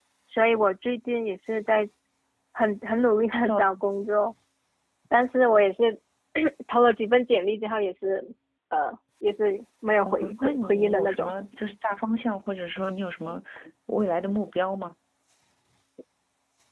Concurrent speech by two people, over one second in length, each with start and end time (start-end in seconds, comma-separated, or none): 10.0-11.3